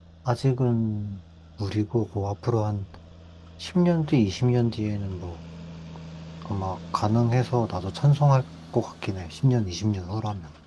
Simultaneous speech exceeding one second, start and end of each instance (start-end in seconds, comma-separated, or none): none